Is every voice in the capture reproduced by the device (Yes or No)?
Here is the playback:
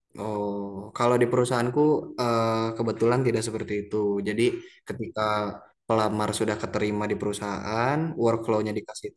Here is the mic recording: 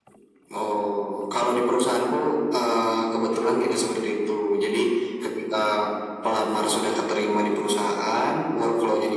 Yes